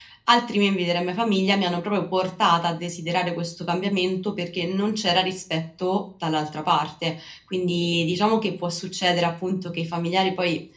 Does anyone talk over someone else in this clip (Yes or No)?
No